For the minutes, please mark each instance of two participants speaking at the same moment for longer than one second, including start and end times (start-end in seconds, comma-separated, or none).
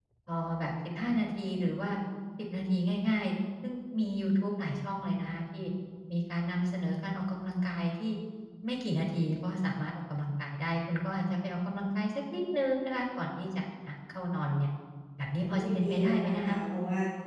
15.3-16.6